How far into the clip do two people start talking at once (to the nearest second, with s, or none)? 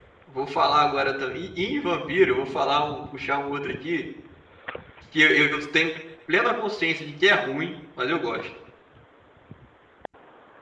none